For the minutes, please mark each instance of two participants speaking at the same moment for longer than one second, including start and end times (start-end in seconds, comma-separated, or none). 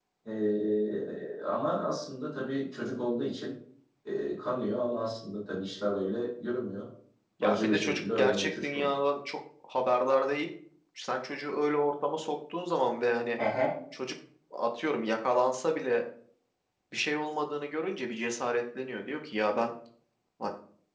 7.4-8.9